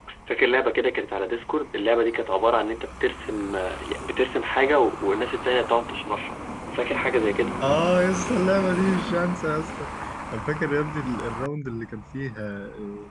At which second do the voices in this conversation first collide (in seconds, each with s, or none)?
none